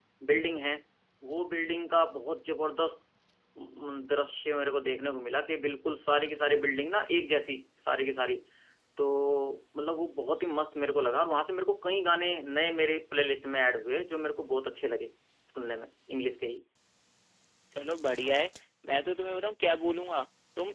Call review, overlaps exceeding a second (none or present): none